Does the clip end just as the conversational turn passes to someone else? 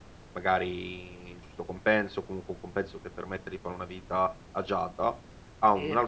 No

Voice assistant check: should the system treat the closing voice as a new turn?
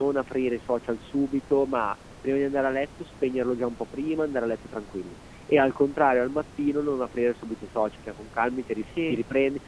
No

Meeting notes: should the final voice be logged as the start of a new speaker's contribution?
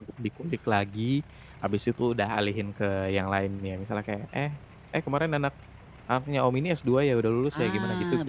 Yes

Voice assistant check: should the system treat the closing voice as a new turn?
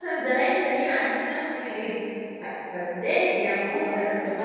Yes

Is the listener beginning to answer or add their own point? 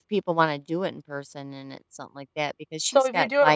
Yes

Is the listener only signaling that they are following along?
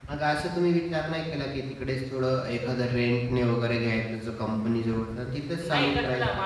No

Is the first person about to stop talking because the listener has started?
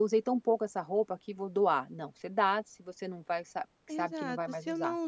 Yes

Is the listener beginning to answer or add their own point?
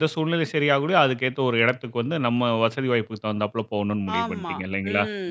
Yes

